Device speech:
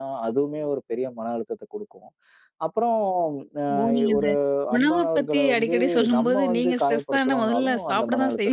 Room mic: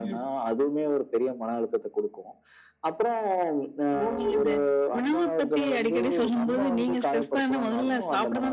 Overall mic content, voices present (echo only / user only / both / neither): echo only